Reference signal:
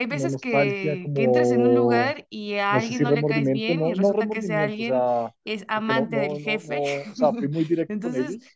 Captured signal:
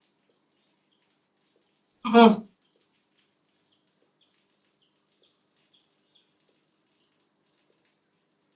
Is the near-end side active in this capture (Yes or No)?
Yes